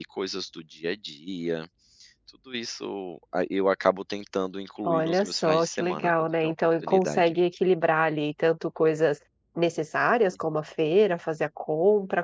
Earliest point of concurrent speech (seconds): 4.8 s

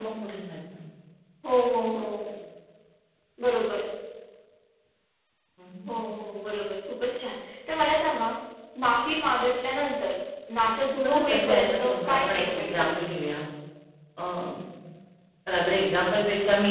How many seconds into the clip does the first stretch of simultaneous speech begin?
11.0 s

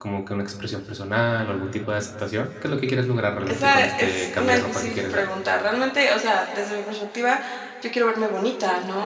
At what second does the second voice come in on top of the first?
3.4 s

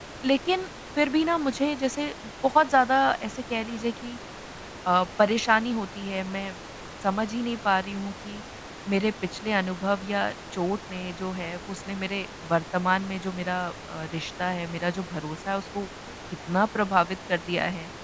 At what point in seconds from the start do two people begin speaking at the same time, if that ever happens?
none

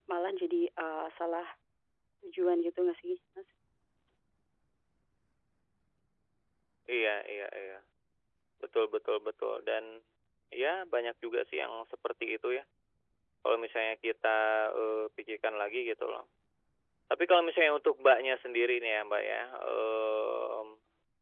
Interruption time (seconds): none

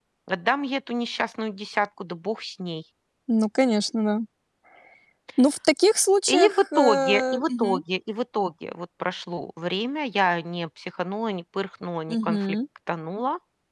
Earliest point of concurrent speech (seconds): 6.3 s

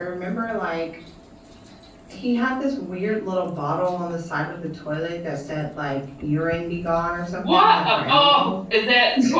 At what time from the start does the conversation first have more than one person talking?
7.2 s

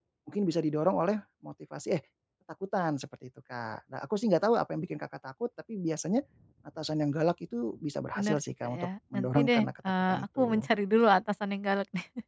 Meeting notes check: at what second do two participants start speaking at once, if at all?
8.2 s

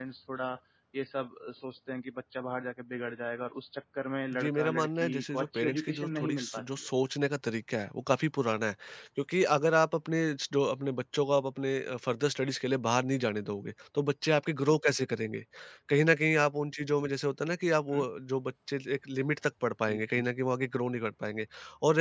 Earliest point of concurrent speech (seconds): 4.3 s

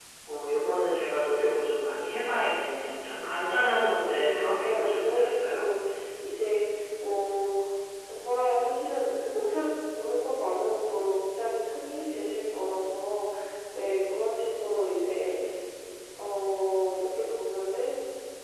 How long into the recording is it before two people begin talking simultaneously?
3.7 s

